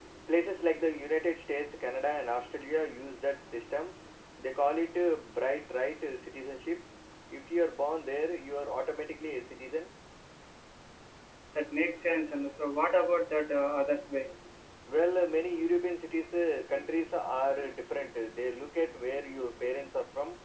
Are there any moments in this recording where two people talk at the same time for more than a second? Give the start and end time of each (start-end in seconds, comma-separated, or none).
none